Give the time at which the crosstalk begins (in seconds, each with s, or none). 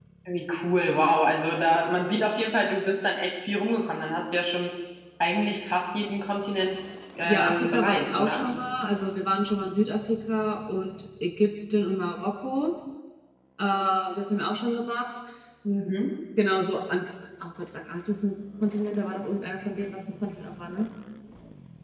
7.2 s